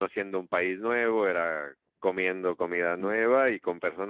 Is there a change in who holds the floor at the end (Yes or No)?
No